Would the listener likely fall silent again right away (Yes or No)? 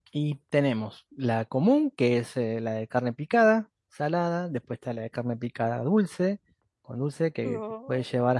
Yes